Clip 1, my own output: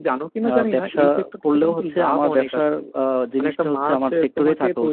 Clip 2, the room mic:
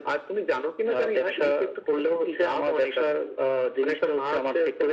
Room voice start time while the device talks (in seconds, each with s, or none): none